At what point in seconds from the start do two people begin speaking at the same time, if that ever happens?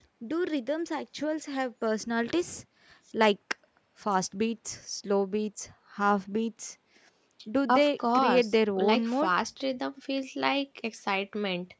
7.7 s

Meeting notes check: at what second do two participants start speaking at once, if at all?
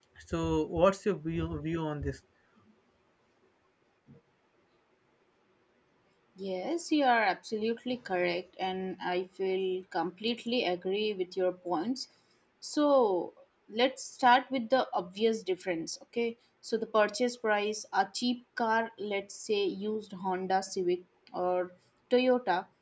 none

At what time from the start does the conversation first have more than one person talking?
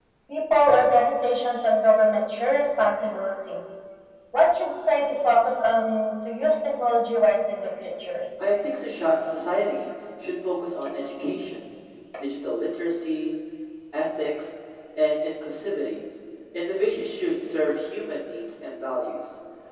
none

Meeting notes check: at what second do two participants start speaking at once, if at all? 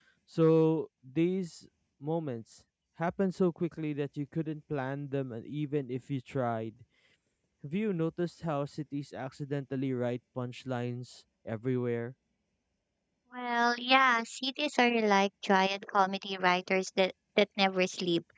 none

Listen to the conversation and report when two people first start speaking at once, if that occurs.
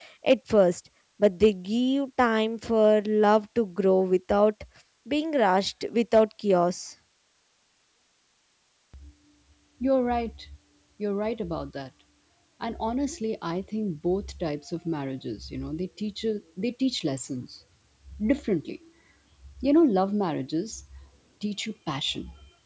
none

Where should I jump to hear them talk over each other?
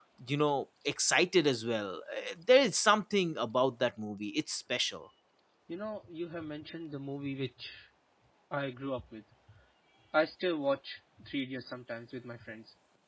none

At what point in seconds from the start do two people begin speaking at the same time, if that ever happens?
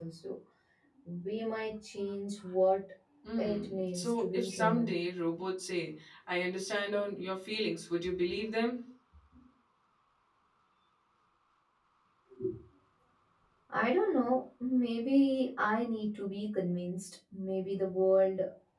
3.4 s

